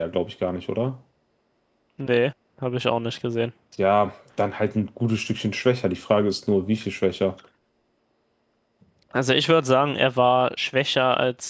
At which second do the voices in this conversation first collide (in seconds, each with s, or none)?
none